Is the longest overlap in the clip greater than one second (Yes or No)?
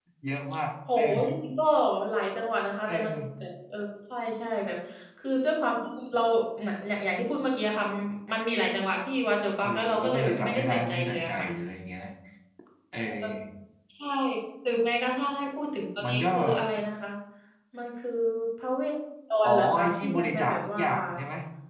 Yes